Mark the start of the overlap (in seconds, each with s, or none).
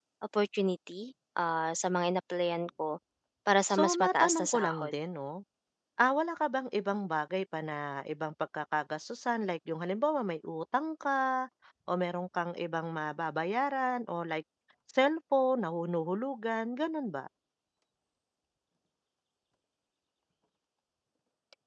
3.7 s